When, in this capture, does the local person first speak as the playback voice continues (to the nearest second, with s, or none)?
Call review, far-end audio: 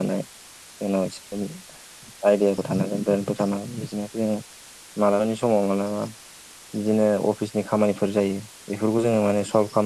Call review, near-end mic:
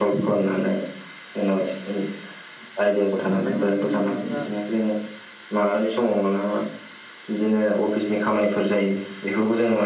3 s